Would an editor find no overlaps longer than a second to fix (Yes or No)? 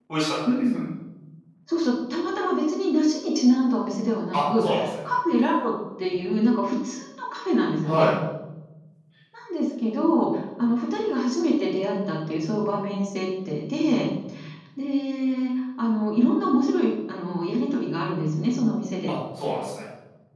Yes